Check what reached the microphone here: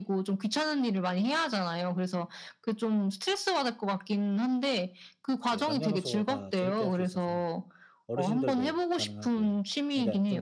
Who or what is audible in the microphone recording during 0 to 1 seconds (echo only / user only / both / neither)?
echo only